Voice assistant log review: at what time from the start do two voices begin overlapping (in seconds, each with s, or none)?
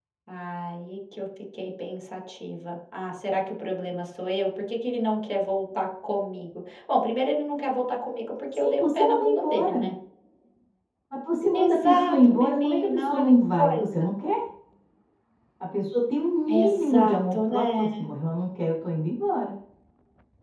8.5 s